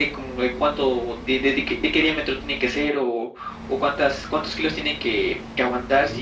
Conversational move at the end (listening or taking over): listening